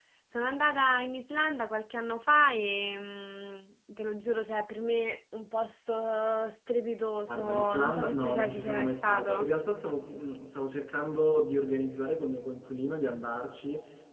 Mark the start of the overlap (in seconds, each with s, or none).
7.3 s